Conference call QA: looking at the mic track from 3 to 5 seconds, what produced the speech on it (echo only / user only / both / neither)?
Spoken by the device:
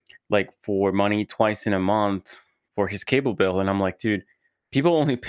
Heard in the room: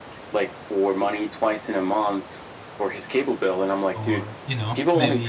both